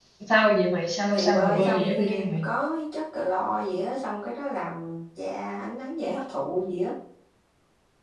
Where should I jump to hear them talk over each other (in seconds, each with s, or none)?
1.1 s